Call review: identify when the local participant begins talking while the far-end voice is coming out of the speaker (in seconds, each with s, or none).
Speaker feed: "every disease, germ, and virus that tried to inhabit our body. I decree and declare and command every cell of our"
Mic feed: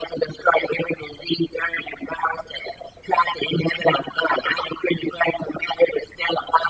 none